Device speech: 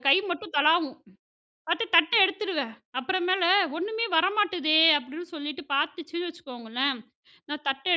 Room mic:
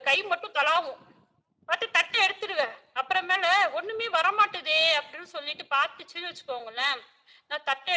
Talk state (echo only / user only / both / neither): echo only